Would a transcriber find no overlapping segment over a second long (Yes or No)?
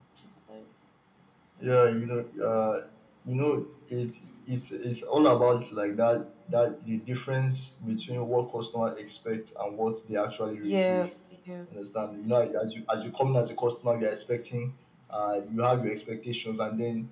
Yes